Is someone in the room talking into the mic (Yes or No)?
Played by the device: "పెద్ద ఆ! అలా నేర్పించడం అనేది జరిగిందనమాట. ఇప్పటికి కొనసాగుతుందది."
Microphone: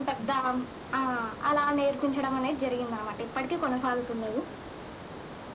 No